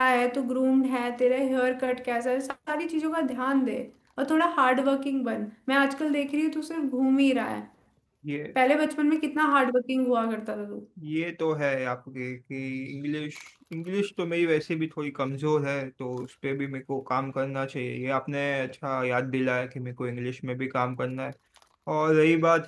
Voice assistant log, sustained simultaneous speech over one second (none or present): none